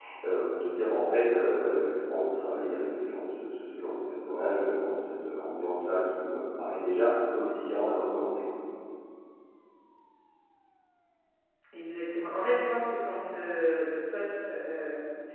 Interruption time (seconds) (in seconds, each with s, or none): none